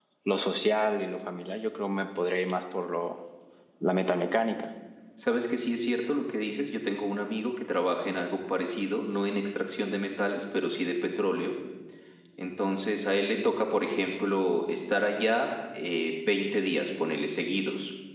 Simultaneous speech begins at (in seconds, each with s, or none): none